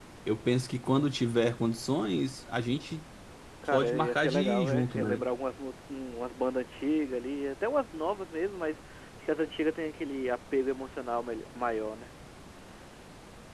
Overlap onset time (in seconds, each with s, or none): 3.7 s